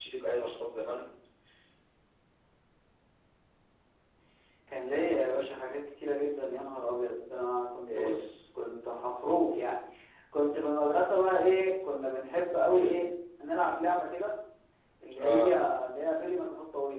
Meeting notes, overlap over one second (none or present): none